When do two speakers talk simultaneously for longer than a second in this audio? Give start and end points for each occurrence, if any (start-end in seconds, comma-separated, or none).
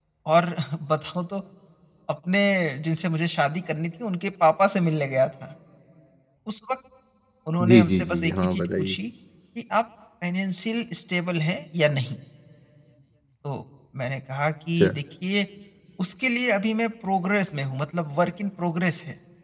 7.6-8.9